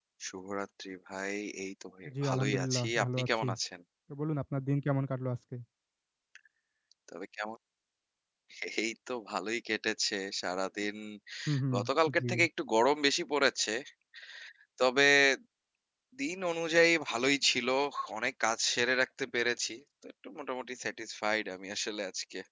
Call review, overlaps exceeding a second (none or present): present